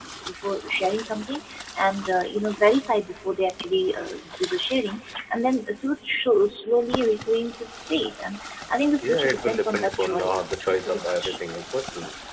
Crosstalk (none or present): present